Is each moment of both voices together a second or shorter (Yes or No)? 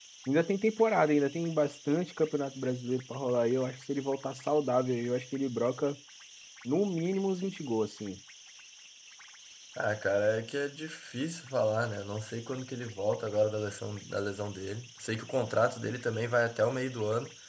Yes